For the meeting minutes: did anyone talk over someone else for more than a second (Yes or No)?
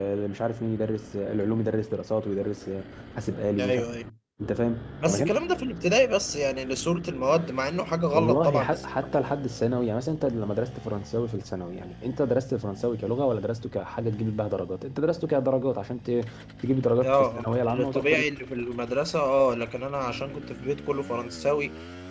Yes